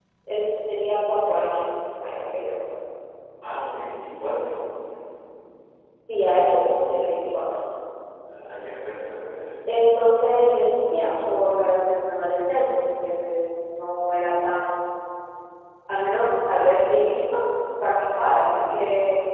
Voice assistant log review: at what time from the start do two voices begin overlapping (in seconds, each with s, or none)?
none